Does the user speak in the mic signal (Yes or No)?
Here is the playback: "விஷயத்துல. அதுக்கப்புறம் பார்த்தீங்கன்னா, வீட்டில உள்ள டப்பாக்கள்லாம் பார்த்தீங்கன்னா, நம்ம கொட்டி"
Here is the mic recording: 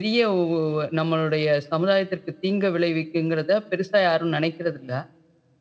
Yes